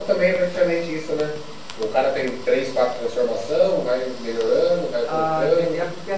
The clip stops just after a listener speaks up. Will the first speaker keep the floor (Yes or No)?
No